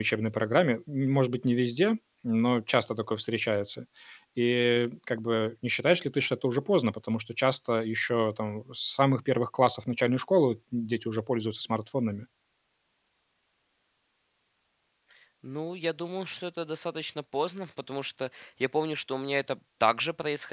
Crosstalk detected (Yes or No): No